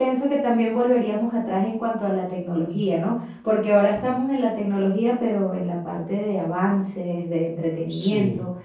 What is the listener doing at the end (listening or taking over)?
listening